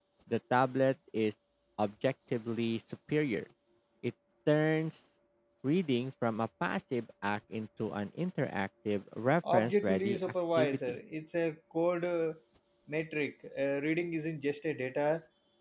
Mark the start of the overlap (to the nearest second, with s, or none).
9 s